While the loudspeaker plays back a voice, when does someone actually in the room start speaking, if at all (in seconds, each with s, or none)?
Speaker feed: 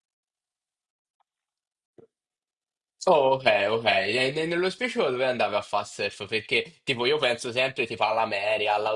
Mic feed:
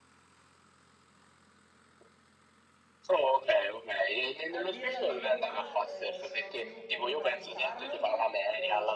4.6 s